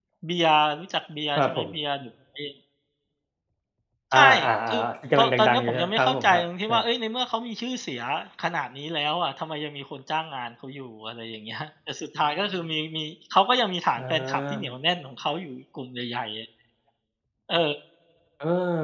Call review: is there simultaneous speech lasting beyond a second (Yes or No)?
Yes